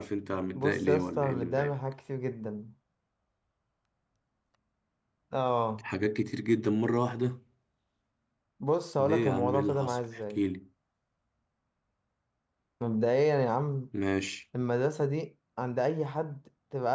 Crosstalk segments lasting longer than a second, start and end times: 0.5-1.8, 9.0-10.4

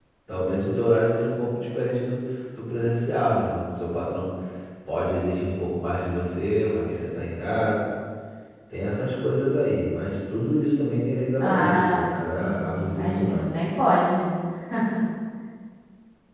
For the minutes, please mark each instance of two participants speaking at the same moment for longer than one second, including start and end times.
11.4-13.5

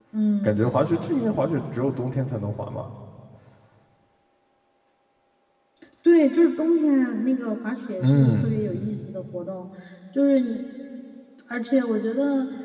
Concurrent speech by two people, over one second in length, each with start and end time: none

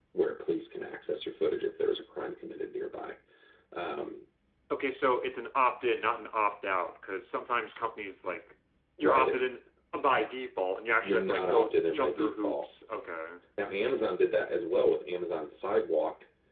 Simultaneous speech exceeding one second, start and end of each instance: 11.0-12.6

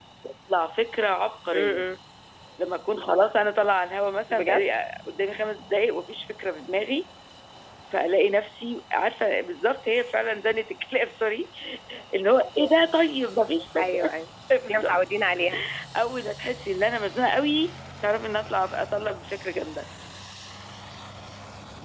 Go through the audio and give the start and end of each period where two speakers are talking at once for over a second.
none

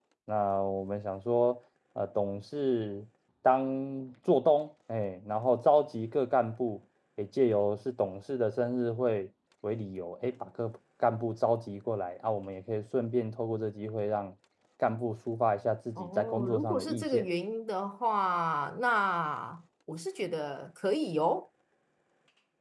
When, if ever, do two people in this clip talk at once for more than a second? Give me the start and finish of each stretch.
16.0-17.3

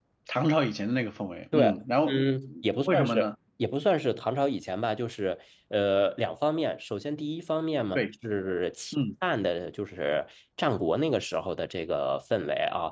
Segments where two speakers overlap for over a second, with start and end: none

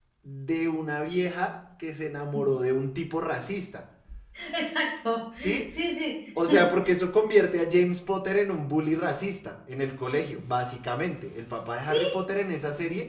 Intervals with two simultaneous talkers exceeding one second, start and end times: none

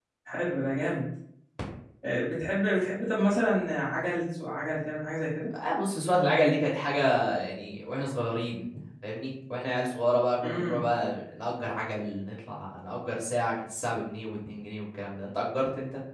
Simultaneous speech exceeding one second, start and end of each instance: none

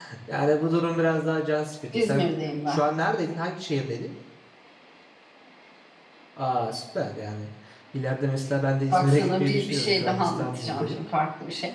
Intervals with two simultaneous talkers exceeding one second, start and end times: 8.9-11.0

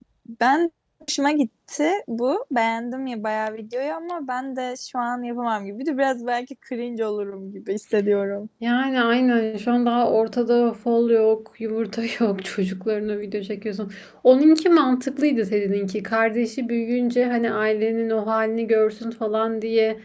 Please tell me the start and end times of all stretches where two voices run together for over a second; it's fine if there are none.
none

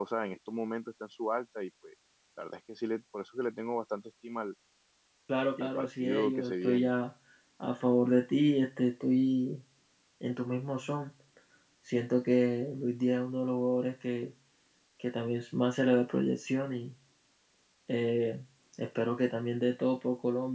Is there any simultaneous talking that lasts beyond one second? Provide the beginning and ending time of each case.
5.6-6.9

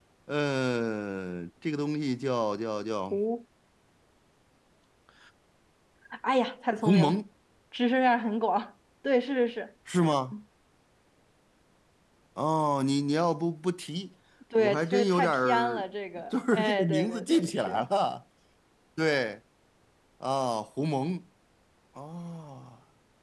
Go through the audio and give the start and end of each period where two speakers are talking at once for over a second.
14.6-15.8, 16.3-17.8

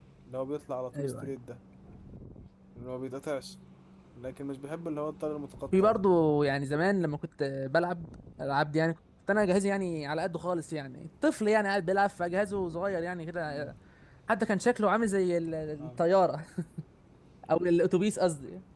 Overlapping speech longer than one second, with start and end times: none

